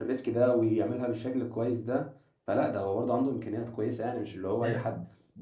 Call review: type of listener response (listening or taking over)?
taking over